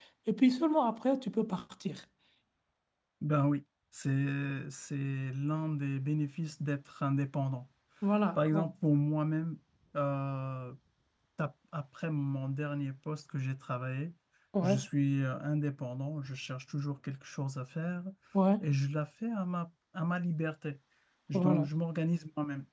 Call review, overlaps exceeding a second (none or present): none